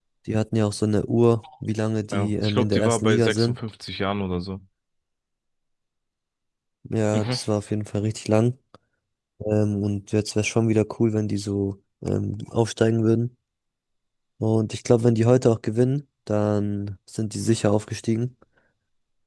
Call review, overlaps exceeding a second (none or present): present